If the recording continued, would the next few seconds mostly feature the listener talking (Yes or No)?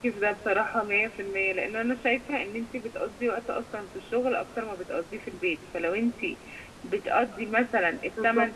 No